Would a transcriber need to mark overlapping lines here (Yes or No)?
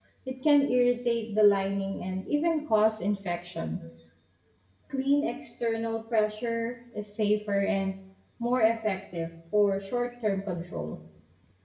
No